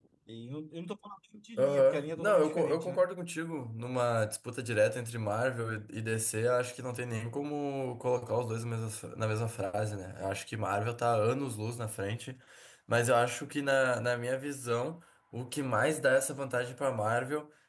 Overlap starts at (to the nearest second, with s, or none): 2 s